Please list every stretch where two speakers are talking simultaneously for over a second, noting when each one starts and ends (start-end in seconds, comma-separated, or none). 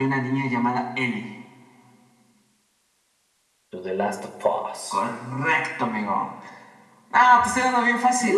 none